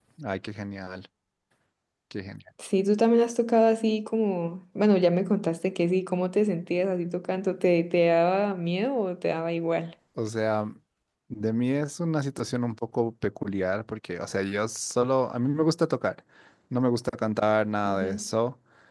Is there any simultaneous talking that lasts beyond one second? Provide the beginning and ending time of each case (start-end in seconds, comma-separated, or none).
none